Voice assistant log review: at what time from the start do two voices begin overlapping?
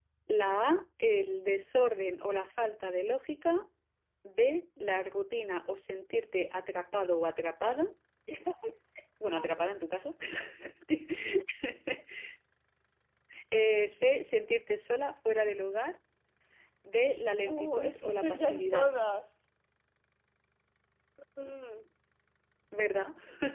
17.4 s

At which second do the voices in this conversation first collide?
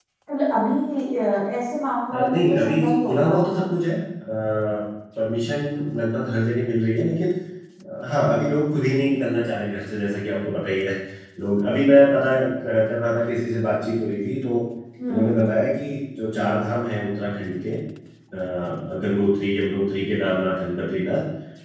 2.1 s

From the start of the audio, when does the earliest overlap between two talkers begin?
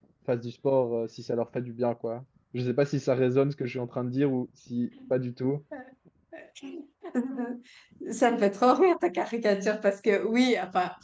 none

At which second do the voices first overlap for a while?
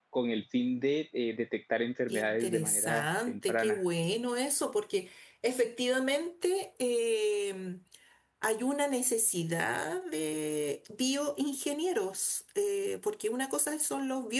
2.1 s

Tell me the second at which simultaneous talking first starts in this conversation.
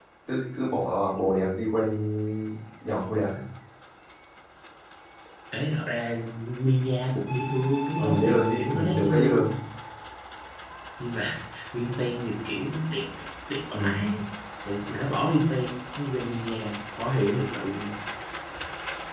8.0 s

